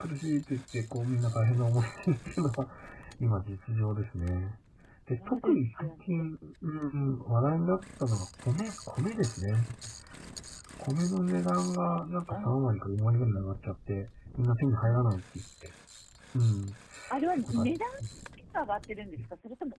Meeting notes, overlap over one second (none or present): present